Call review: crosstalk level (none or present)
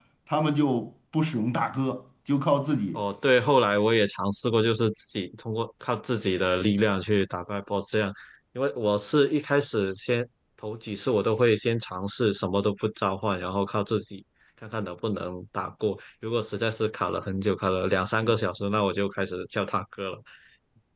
none